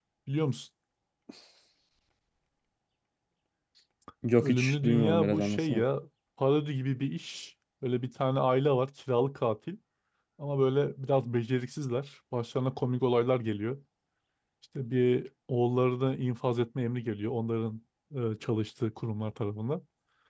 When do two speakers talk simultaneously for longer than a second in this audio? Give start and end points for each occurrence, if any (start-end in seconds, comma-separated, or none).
4.4-5.8